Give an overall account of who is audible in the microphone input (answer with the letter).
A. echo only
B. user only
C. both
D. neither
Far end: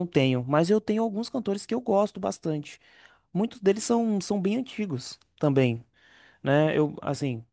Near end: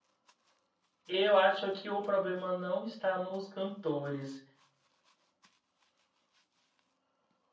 B